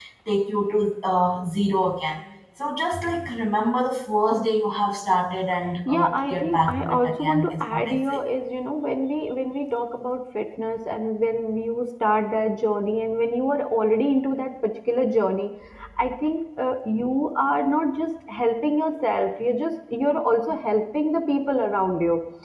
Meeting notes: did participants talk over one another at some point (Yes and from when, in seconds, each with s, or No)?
Yes, from 5.9 s